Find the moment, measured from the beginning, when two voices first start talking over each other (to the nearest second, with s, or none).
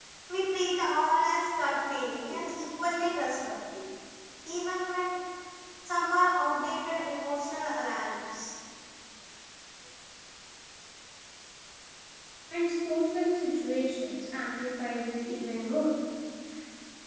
none